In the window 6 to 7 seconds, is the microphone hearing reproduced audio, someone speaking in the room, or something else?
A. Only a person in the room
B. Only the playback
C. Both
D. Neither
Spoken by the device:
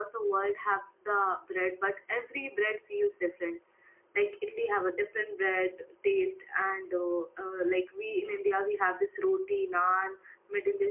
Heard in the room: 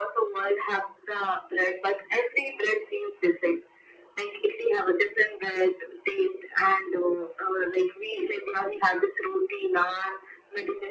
B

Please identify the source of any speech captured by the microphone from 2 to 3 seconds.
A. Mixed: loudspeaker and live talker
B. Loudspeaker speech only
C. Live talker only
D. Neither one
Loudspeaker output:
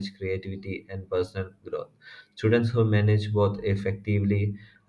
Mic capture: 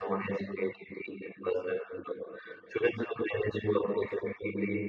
B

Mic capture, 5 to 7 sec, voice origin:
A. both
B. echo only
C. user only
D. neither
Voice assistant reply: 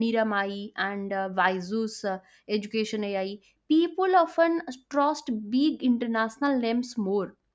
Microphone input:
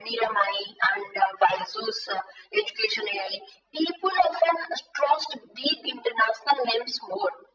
B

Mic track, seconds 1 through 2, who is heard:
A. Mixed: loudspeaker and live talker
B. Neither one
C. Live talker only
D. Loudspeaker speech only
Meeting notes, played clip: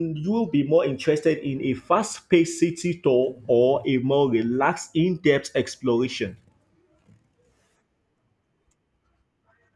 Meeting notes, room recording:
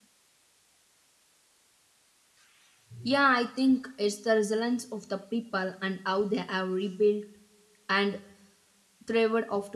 B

